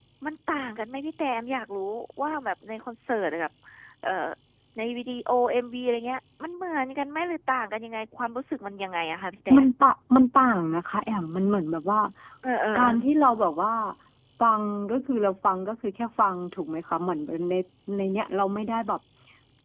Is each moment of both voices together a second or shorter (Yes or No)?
Yes